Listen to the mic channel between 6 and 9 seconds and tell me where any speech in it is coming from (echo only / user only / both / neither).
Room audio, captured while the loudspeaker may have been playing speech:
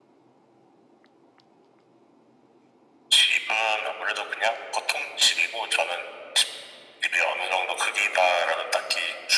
echo only